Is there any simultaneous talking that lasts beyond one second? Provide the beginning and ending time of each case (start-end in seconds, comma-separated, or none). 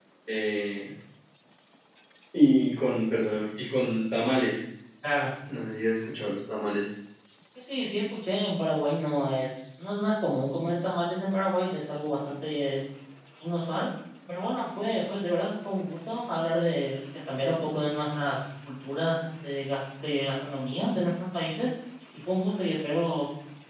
none